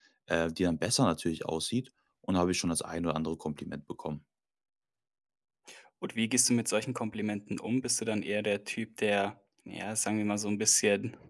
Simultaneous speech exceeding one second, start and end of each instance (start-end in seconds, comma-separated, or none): none